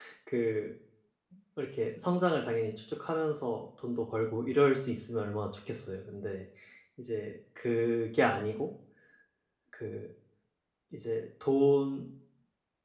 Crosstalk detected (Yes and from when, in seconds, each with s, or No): No